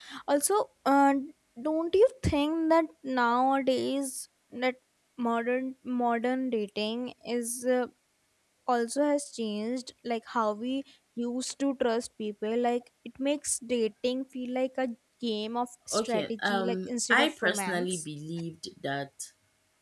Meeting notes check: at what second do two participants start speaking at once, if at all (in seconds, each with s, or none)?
15.9 s